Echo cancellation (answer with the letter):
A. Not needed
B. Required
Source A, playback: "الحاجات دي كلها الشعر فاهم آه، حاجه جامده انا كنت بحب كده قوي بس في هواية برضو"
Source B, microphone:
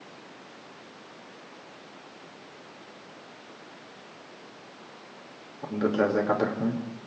A